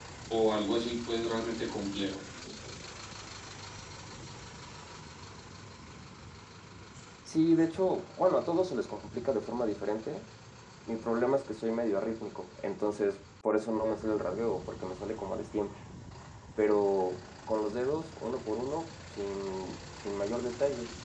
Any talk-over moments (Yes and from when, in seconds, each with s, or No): No